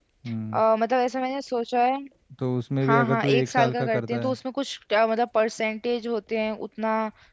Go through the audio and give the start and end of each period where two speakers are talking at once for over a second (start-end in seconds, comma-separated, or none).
2.8-4.4